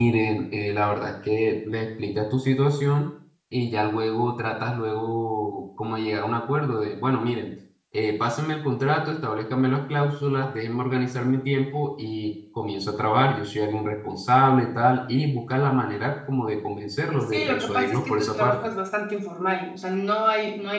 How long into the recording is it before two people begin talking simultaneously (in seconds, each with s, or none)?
17.3 s